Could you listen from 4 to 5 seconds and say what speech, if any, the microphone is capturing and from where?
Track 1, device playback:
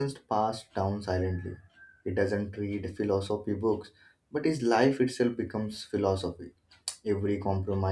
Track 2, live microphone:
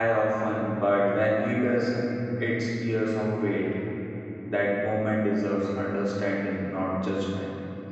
user only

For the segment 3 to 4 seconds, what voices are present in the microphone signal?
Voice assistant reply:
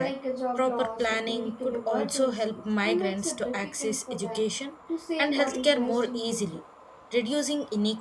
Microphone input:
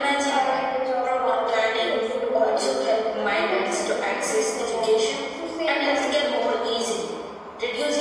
both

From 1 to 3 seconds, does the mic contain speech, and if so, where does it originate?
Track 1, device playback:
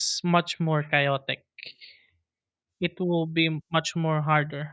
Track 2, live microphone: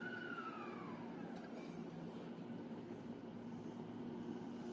neither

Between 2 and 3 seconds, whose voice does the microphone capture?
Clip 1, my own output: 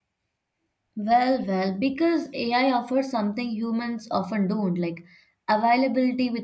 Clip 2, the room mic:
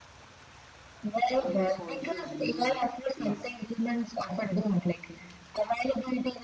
both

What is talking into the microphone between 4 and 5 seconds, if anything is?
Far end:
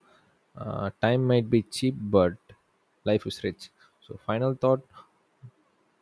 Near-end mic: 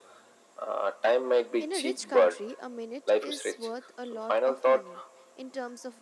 both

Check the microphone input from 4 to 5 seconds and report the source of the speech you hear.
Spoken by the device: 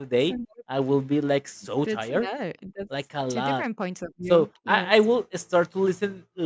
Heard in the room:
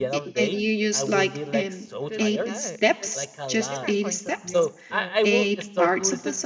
both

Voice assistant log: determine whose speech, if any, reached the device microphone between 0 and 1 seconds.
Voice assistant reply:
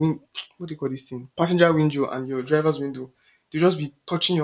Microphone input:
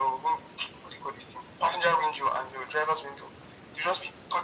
echo only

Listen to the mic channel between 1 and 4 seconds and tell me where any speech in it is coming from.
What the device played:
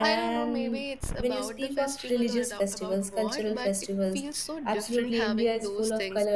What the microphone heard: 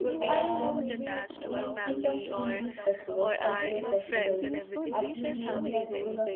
both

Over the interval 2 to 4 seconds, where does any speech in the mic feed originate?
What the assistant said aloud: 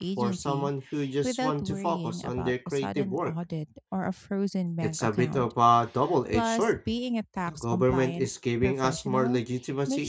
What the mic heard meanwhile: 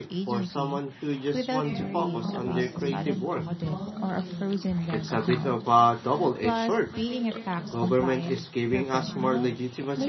both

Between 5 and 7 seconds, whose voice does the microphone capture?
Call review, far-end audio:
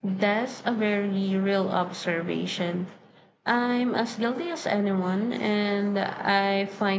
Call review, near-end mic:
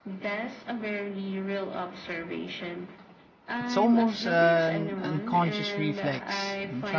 both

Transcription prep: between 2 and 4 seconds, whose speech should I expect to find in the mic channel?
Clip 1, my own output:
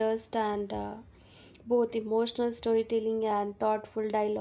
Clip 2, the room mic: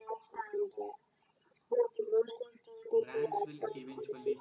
both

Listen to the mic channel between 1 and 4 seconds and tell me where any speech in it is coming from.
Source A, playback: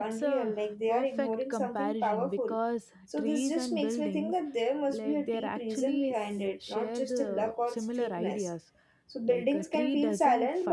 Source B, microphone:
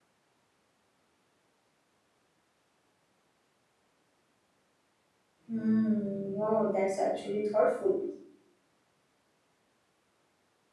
neither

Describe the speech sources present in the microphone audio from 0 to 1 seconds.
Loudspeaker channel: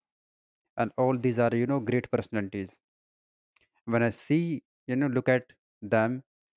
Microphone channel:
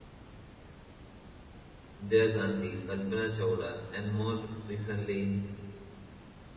neither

